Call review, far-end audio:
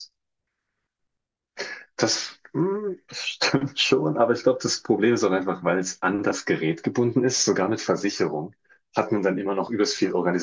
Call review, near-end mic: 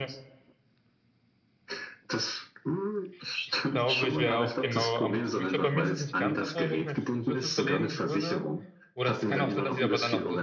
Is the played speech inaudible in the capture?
No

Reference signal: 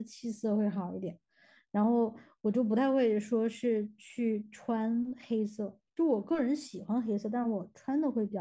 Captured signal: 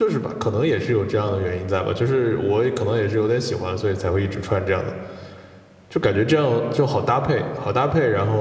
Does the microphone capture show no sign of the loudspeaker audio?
Yes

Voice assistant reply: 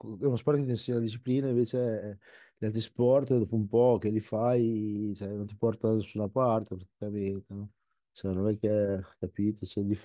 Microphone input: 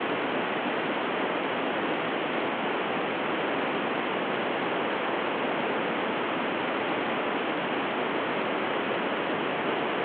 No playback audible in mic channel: Yes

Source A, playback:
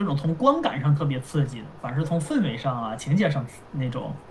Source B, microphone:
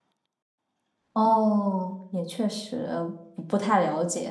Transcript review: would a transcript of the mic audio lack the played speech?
Yes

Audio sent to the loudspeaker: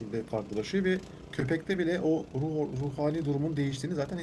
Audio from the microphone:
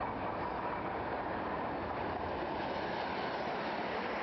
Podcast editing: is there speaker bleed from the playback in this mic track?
No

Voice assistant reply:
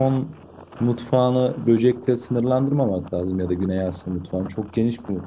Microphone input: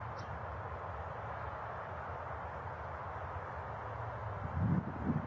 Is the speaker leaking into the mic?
No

